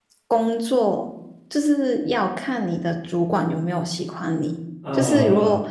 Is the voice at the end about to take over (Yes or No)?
No